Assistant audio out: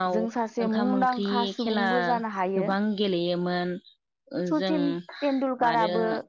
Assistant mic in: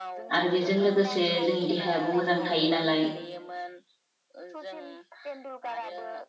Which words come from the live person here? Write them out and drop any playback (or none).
आरो बेजों लोगोसे जोंनि देहायाबो मोजां थायो नालाय